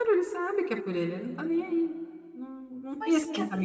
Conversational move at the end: listening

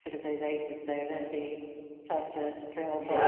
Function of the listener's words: taking over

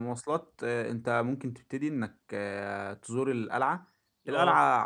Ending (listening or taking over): listening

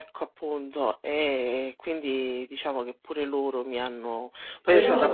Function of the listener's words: taking over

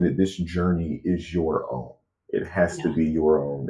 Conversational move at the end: listening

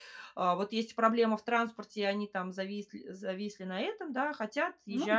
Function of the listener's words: listening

